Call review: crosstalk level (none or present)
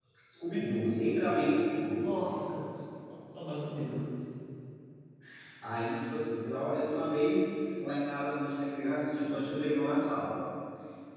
none